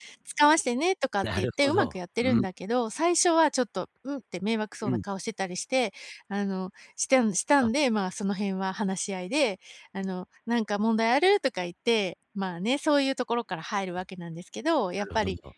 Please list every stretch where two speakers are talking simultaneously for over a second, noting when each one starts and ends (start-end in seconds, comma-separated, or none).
1.2-2.5